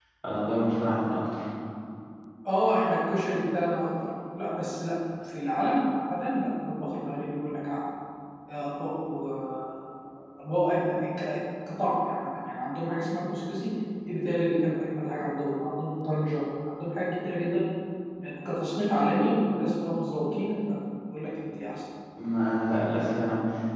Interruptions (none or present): none